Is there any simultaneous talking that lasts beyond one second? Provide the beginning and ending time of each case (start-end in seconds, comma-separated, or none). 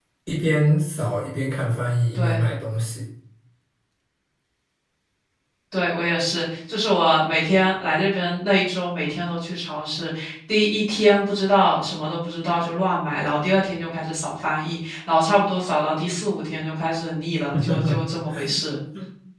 none